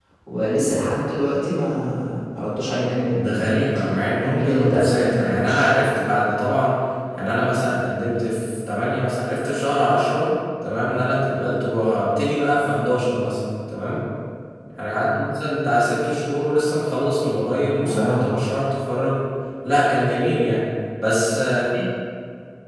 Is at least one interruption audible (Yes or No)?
Yes